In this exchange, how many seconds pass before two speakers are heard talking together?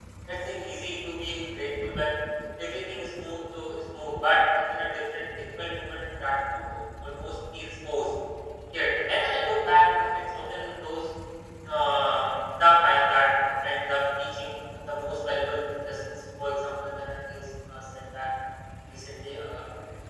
none

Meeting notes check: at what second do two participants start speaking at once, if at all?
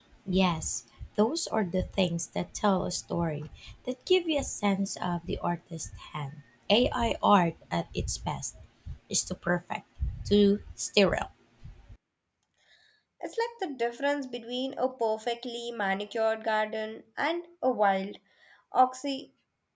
none

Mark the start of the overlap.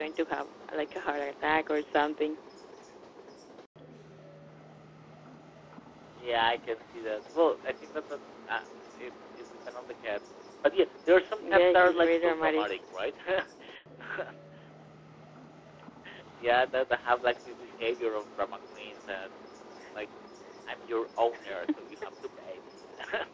11 s

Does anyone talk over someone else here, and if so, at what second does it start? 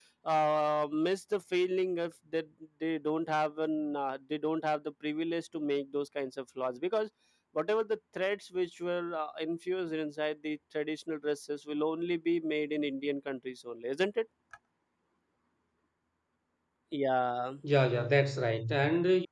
none

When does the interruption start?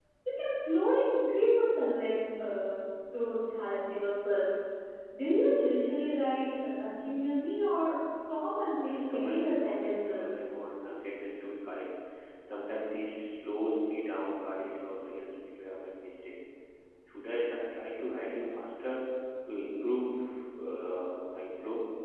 9 s

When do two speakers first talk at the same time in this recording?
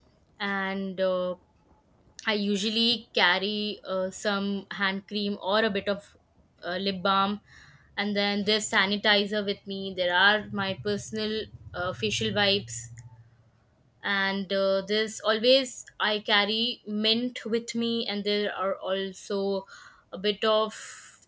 none

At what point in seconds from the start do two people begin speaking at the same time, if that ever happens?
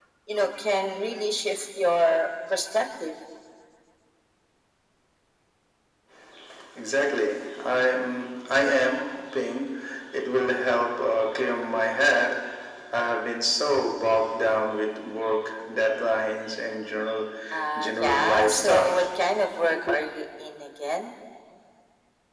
18 s

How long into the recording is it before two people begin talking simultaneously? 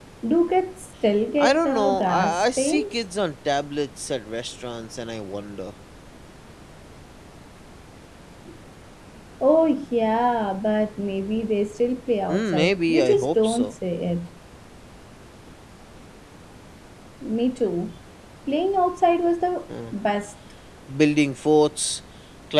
1 s

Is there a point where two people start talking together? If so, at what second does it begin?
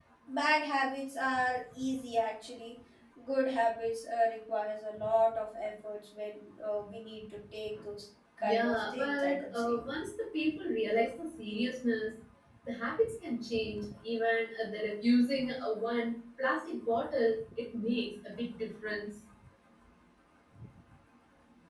8 s

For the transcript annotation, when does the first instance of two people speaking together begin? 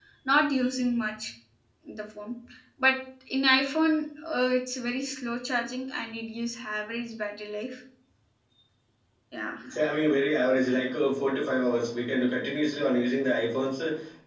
none

